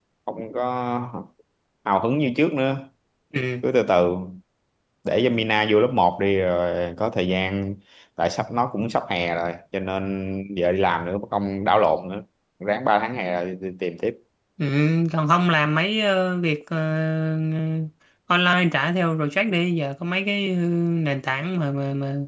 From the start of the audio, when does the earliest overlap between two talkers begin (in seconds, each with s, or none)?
none